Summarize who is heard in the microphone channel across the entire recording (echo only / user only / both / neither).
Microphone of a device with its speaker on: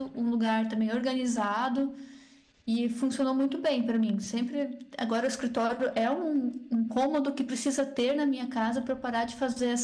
user only